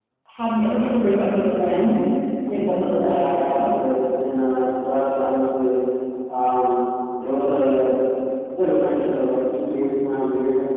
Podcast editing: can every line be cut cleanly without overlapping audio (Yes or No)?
No